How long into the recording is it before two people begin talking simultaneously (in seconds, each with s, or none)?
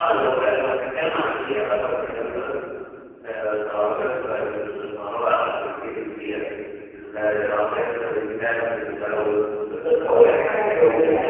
9.8 s